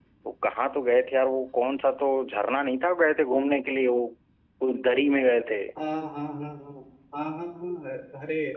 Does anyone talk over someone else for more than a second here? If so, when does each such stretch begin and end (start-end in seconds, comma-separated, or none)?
none